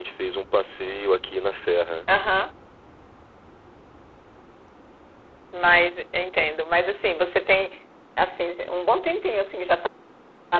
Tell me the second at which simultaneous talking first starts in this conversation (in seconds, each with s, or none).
none